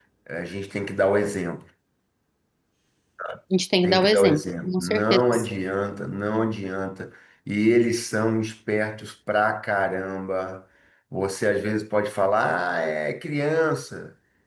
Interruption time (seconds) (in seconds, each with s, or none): 3.8 s